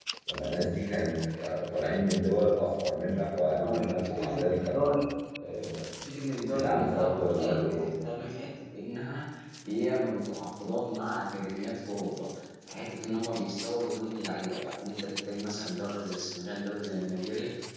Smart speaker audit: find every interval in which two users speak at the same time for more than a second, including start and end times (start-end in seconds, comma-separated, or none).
3.6-4.9, 6.5-7.9